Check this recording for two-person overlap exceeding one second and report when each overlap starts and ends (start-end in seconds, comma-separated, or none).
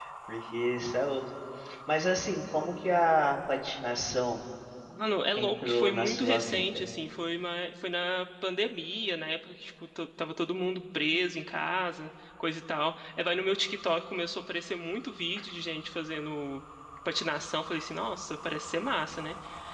5.3-6.8